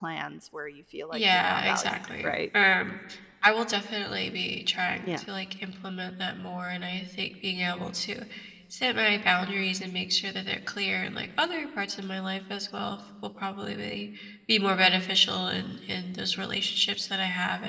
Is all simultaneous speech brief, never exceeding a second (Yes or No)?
No